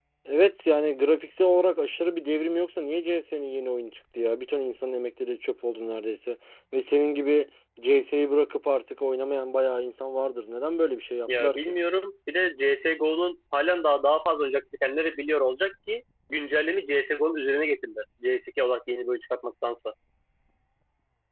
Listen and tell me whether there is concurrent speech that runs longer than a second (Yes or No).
No